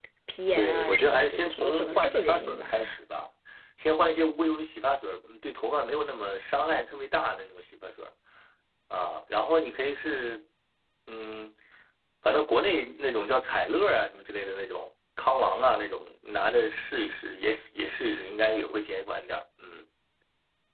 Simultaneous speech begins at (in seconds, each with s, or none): 0.6 s